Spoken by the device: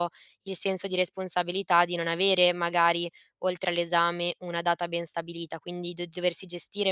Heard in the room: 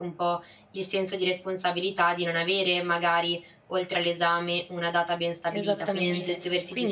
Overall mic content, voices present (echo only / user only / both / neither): both